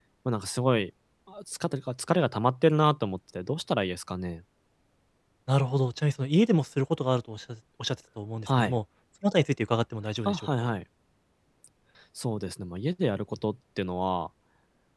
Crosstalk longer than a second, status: none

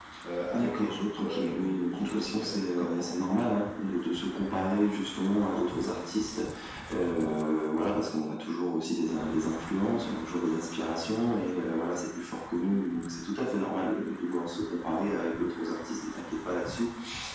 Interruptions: present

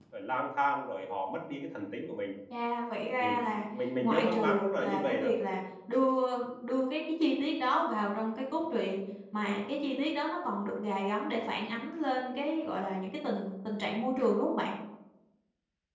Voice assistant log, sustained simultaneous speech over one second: present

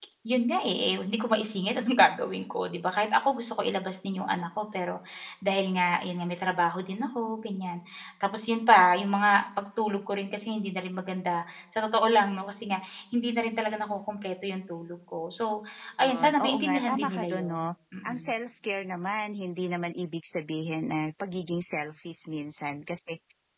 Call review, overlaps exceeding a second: present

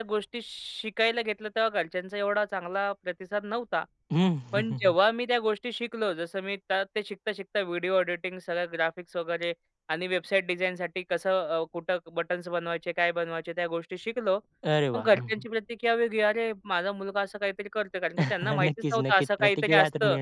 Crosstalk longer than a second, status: present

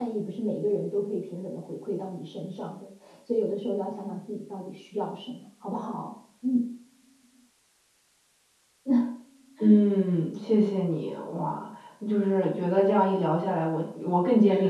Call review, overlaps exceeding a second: none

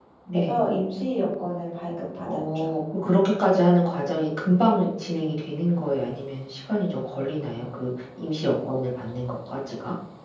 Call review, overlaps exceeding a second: none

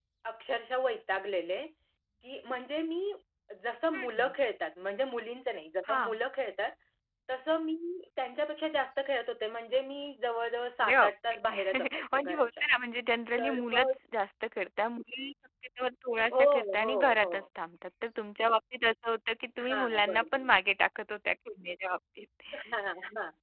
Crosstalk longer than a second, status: present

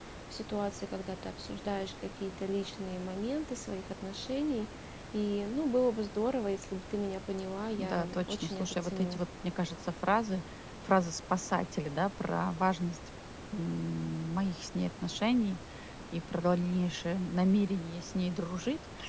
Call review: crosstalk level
present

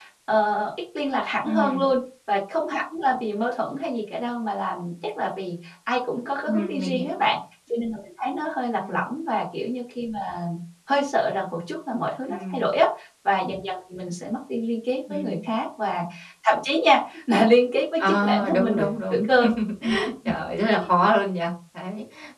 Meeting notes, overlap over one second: present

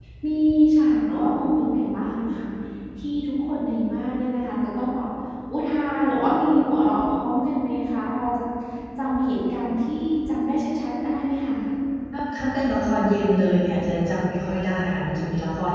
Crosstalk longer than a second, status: none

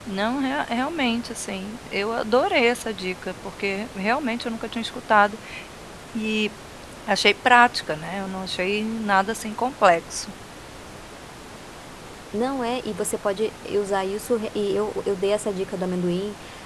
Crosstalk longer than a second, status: none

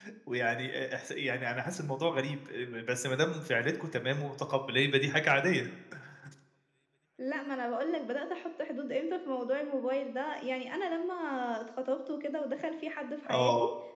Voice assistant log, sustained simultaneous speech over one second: none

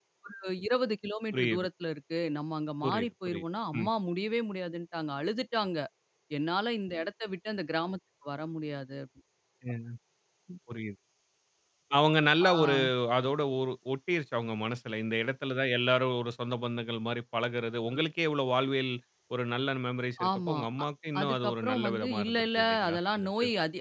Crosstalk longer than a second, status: present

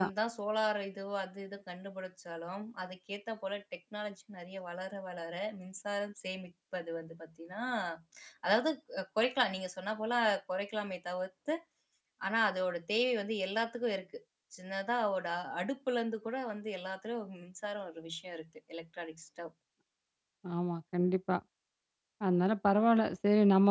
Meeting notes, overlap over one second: none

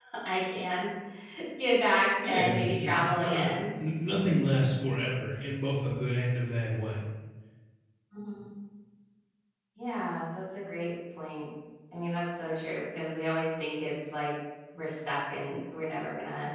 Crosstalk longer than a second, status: present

